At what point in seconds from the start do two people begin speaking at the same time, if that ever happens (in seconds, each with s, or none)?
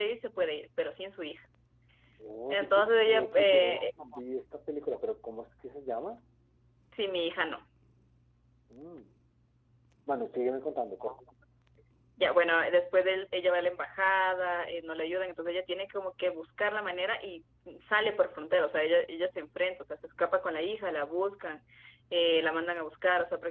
2.5 s